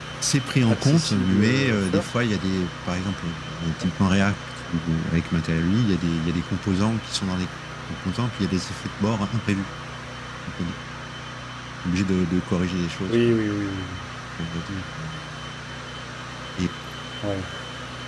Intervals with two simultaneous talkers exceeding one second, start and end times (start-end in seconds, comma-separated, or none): 0.7-2.1